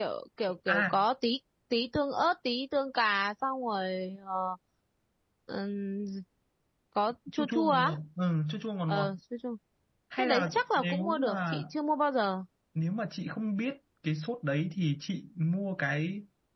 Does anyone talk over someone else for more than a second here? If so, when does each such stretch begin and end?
10.2-11.6

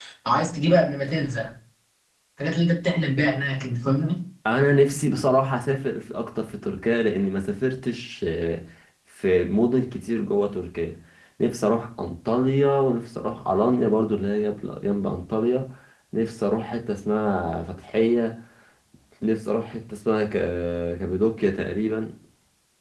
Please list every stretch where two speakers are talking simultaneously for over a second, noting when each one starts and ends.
none

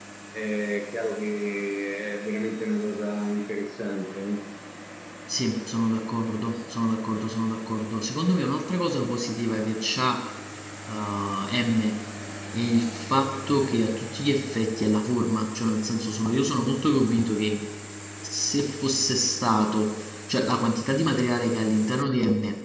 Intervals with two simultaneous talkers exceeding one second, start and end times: none

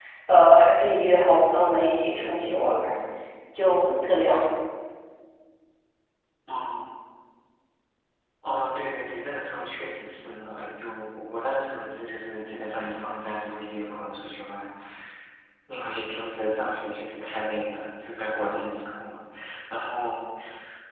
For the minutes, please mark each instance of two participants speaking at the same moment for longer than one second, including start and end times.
none

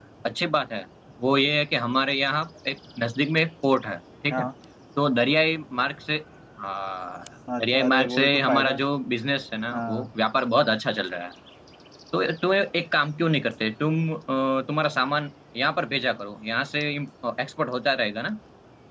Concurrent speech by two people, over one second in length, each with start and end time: 7.6-8.8

